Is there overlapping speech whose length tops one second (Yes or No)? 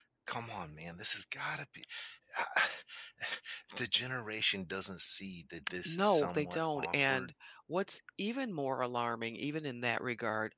Yes